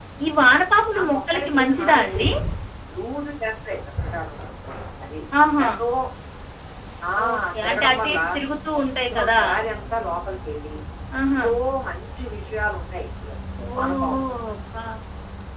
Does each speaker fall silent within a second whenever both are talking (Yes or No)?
No